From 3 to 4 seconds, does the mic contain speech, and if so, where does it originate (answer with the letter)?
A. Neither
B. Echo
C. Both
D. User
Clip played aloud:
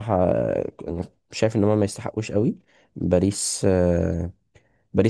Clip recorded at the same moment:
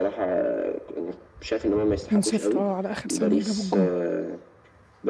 C